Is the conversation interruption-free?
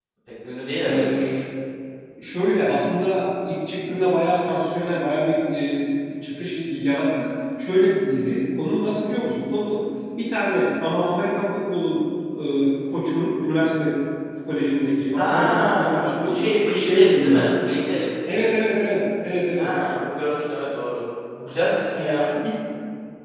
No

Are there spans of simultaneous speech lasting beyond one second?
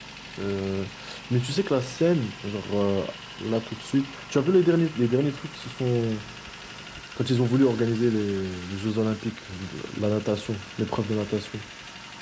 No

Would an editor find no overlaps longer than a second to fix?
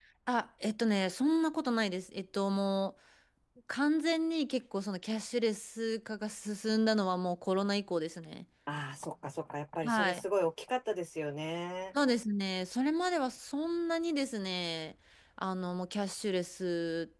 Yes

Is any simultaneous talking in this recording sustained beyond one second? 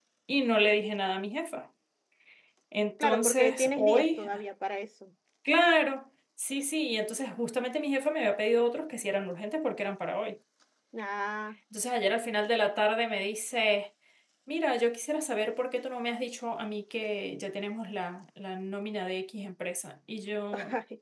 Yes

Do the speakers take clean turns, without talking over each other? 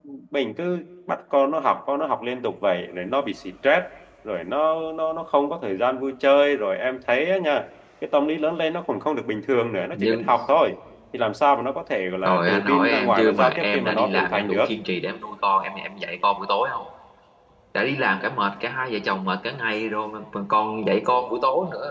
No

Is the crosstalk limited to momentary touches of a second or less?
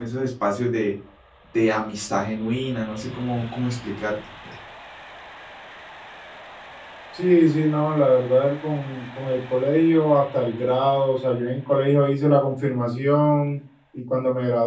Yes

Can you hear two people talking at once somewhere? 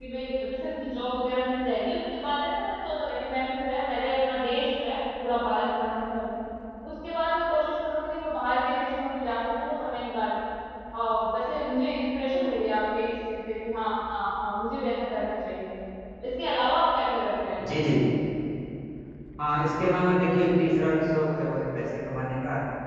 No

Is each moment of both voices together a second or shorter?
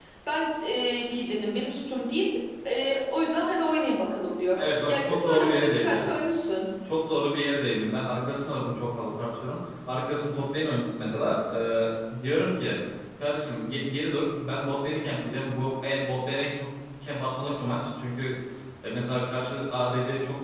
No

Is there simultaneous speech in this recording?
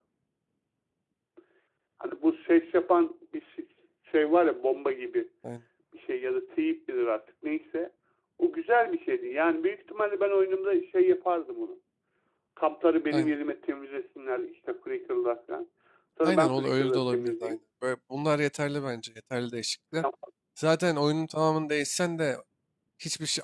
Yes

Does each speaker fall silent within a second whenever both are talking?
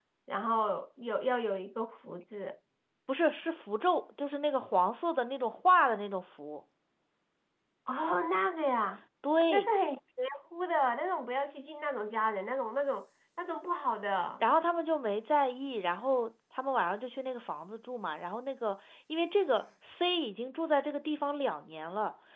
Yes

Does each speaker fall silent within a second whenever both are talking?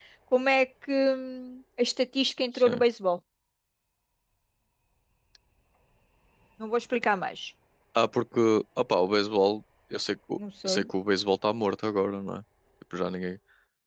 Yes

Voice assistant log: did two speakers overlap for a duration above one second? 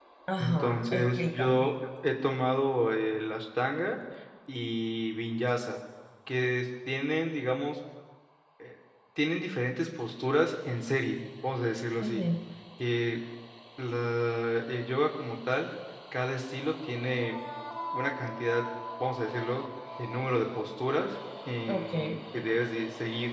Yes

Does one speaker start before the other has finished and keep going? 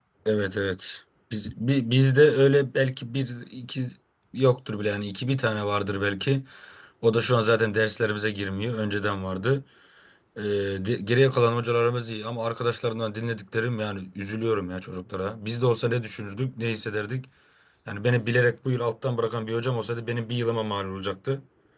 No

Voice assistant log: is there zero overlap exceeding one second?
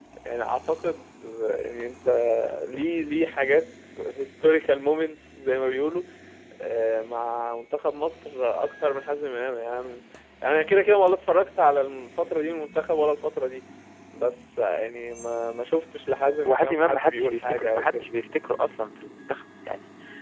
No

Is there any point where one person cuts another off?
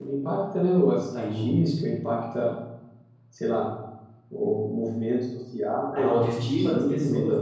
Yes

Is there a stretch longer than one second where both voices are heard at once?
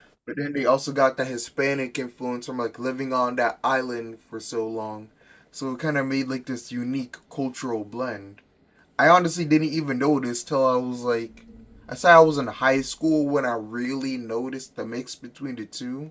No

